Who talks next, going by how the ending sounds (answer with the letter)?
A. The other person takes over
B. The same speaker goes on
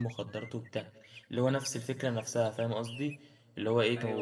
B